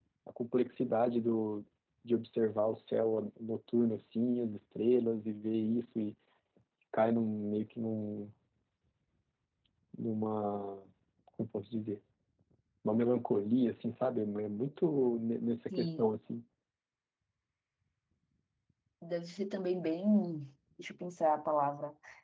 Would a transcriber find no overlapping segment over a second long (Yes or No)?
Yes